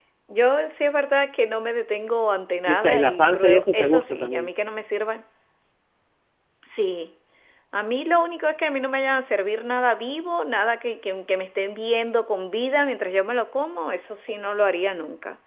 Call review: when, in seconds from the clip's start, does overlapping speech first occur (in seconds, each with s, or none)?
2.7 s